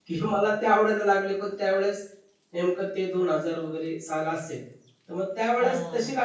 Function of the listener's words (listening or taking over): listening